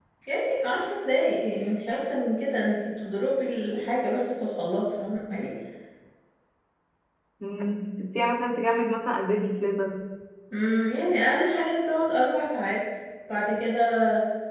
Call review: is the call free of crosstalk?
Yes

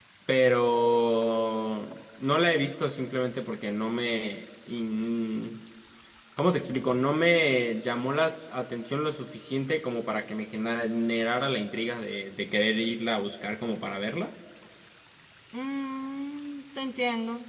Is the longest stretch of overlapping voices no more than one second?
Yes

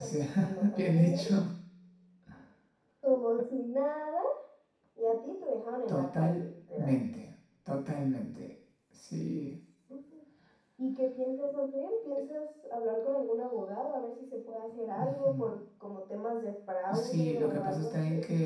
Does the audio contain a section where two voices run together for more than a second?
Yes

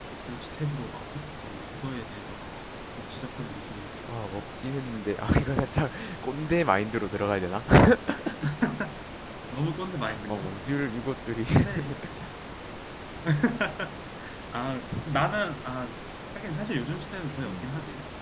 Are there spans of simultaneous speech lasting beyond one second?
No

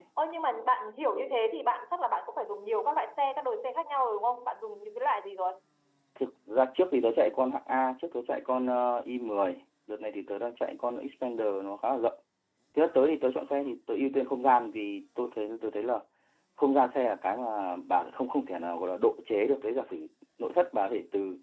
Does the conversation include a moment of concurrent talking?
No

